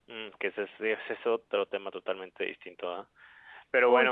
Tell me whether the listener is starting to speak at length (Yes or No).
No